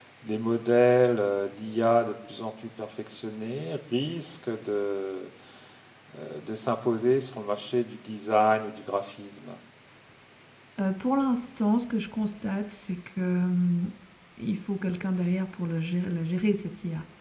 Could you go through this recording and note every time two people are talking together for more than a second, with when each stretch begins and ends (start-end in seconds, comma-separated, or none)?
none